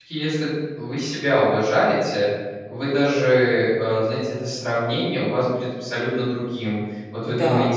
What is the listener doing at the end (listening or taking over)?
listening